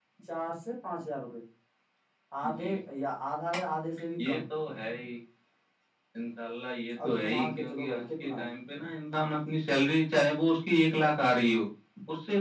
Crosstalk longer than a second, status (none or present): present